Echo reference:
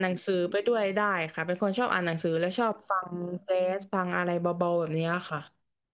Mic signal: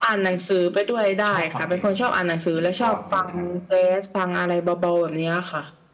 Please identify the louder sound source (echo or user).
echo